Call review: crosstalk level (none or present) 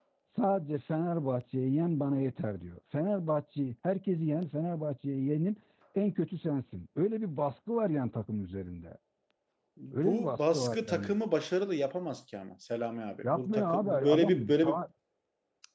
present